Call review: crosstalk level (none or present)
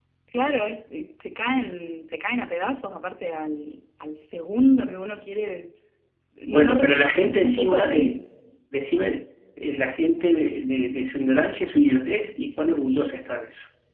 present